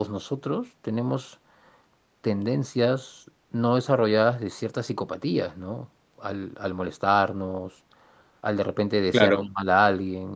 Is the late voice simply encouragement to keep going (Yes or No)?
Yes